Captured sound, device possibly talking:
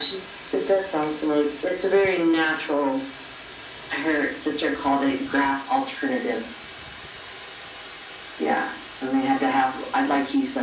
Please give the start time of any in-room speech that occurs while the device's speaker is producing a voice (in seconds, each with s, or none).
none